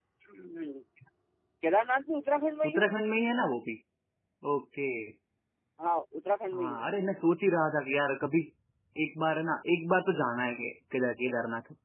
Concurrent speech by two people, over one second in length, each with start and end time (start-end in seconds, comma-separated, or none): none